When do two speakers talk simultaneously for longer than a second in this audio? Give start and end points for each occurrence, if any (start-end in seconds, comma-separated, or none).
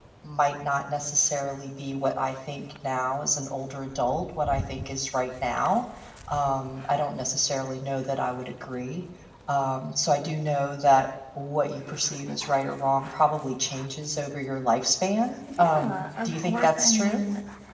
15.6-17.2